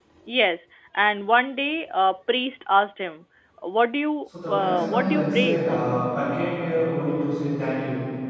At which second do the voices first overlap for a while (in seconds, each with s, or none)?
4.5 s